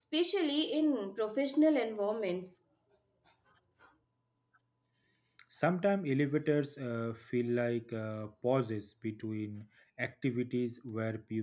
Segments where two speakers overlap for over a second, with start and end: none

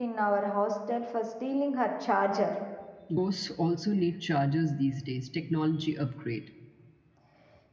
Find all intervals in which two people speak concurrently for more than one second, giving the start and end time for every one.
none

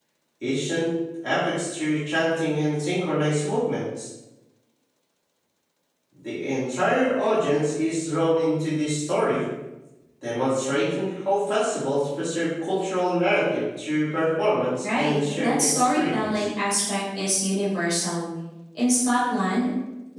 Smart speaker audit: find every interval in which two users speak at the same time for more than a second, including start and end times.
14.8-16.4

